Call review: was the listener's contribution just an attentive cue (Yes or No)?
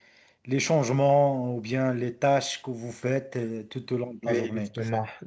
No